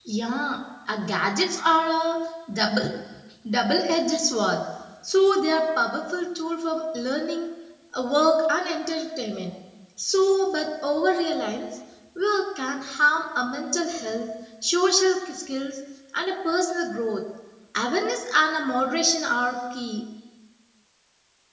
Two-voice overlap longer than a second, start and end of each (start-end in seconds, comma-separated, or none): none